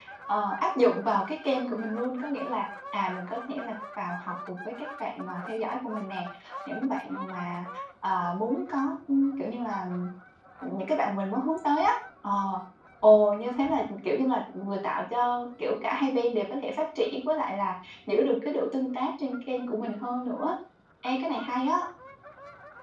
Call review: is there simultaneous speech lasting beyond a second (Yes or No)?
No